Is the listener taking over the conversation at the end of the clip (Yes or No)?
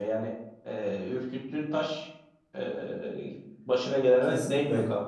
Yes